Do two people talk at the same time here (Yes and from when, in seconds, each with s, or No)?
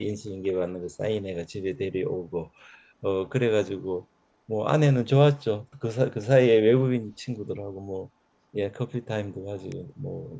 No